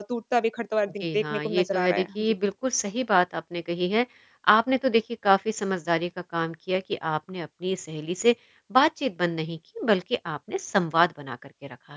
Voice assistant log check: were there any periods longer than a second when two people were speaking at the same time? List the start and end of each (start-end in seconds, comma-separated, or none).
1.0-2.4